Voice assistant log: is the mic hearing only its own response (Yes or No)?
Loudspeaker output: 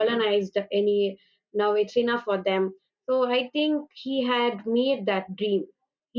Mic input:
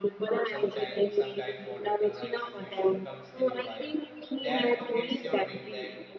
No